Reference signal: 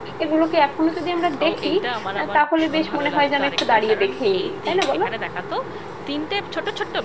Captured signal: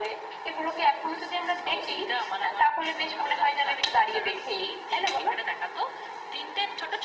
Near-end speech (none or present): none